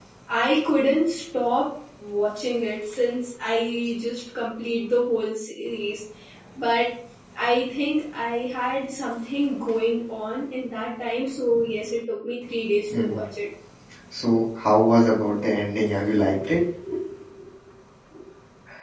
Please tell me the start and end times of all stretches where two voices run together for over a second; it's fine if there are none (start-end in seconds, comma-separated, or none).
none